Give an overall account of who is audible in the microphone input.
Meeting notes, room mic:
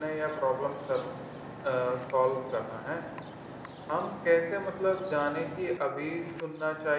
user only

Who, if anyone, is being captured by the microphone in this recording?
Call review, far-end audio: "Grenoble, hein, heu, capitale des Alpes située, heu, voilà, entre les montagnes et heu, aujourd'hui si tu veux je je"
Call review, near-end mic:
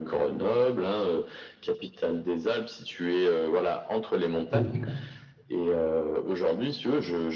both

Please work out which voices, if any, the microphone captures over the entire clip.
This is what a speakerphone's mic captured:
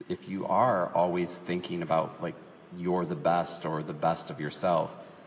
user only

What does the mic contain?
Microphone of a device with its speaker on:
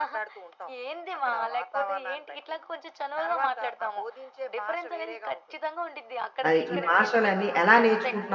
both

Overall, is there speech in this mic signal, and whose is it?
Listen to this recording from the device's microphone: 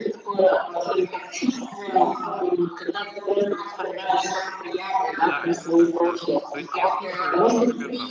both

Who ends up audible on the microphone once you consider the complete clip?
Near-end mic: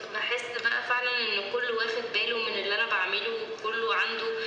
echo only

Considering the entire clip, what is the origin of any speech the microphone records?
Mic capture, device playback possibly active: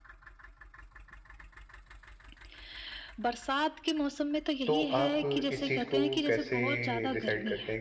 both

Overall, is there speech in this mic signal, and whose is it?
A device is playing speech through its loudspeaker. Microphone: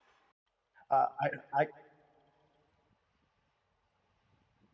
user only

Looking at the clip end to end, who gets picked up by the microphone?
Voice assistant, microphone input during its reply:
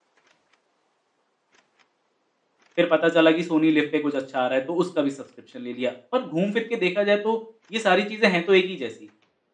user only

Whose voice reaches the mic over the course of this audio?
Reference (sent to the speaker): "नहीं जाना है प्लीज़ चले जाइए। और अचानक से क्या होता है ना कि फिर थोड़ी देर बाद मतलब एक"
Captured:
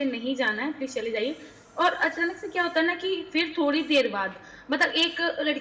echo only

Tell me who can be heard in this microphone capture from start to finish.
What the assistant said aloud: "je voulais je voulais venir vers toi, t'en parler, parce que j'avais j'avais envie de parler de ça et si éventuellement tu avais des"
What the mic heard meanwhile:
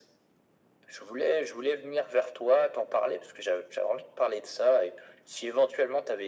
echo only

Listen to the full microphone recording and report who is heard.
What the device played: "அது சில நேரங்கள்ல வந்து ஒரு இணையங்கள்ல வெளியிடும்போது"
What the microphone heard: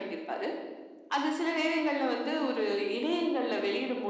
echo only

